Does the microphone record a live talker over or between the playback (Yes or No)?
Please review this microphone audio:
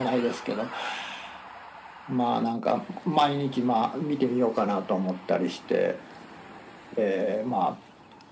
No